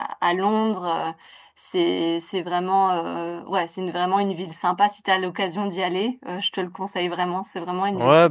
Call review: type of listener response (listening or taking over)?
taking over